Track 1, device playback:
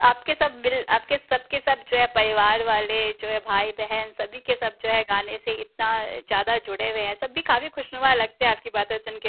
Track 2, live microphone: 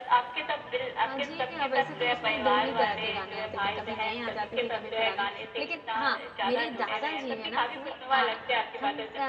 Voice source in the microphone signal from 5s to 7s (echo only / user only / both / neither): both